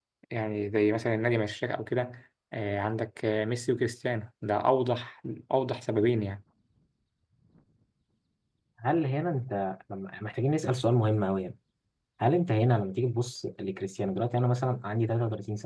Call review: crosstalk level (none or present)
none